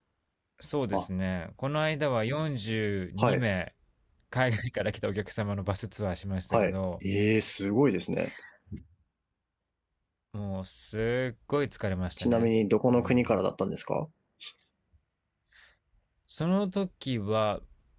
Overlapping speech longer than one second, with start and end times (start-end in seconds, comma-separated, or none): none